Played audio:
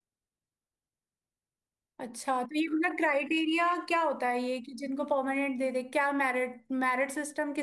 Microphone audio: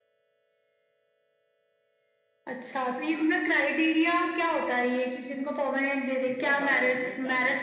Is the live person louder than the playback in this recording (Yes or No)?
No